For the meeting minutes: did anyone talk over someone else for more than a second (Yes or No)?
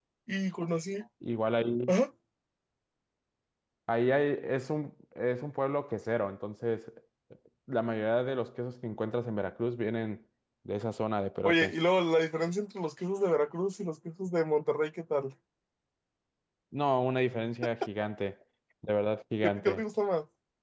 No